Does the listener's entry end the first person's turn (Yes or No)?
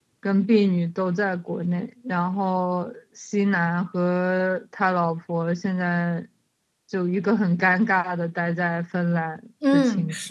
Yes